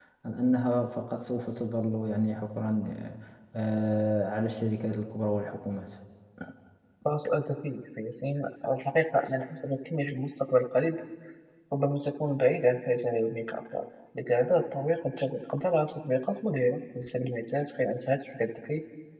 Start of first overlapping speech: none

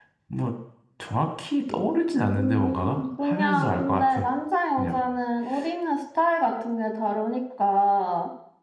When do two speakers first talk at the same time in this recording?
2 s

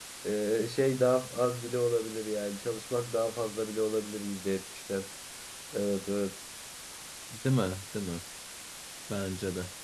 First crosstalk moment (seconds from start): none

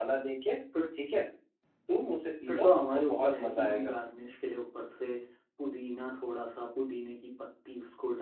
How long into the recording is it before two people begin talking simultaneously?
2 s

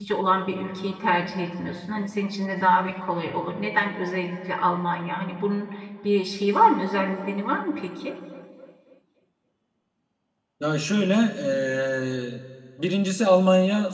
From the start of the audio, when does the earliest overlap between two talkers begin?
none

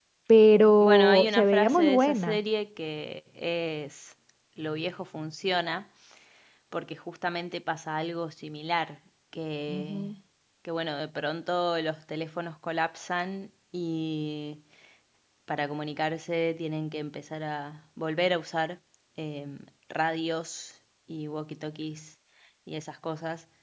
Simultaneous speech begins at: 1 s

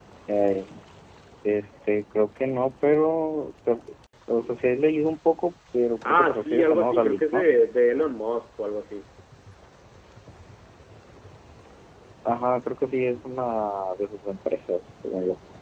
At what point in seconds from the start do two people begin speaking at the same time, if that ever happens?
6 s

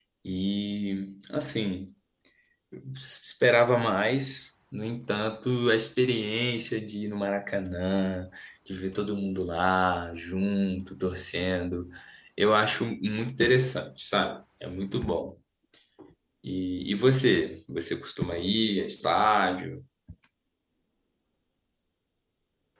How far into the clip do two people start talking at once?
none

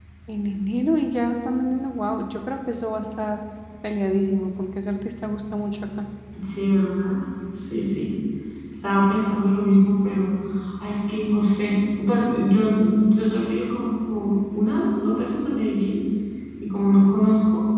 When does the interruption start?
none

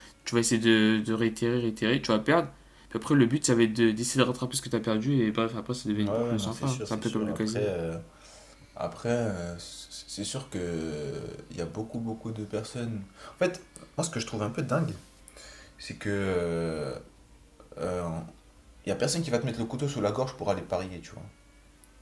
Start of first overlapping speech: 6 s

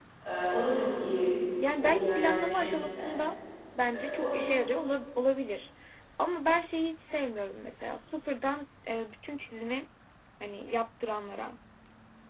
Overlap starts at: 2 s

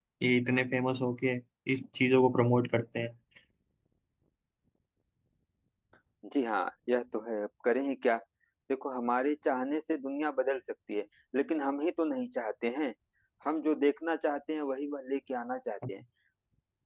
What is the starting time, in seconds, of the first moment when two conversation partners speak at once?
none

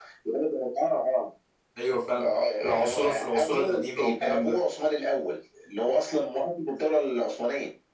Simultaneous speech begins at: 3 s

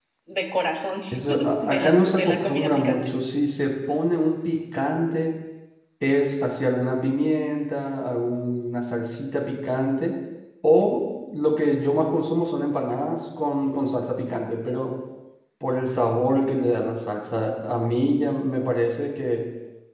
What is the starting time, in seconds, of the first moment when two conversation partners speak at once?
1 s

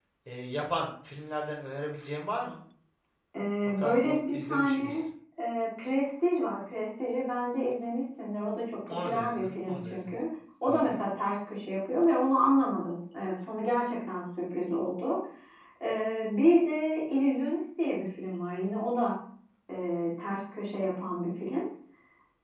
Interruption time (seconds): 4 s

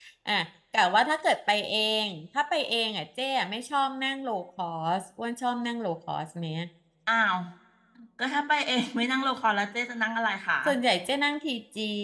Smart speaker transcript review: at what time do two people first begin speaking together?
none

